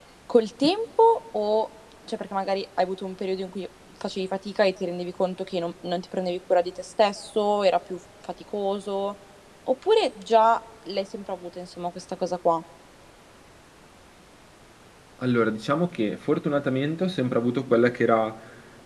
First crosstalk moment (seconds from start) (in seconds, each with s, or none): none